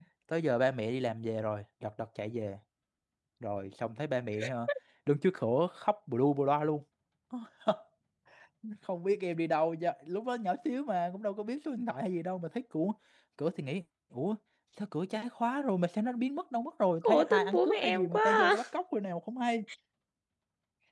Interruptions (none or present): present